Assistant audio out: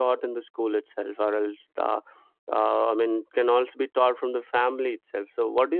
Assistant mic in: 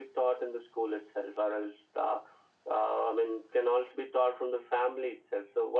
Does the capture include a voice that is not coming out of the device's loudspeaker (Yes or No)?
No